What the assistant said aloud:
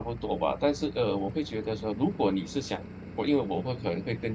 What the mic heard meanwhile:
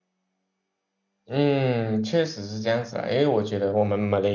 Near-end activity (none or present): present